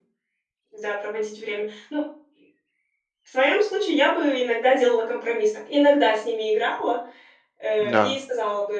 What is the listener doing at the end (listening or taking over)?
listening